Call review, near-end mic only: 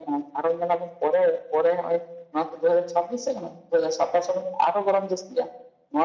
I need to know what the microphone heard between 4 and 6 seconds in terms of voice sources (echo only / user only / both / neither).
echo only